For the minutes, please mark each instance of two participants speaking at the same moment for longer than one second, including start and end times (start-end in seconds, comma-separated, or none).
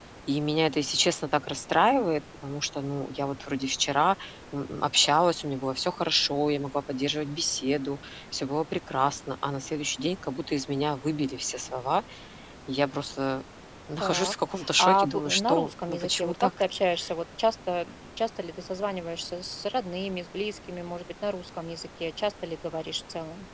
14.0-16.5